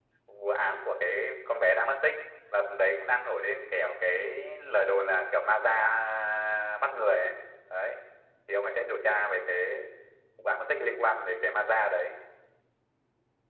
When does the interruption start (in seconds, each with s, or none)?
none